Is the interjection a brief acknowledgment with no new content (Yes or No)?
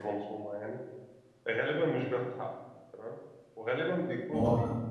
Yes